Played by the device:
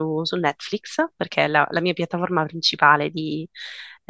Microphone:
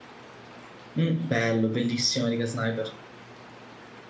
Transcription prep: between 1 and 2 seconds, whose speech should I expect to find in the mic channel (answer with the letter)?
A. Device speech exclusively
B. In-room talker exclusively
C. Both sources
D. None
B